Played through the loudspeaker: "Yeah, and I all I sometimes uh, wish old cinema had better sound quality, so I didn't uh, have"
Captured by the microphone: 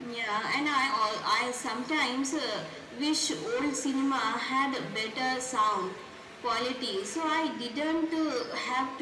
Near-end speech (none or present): none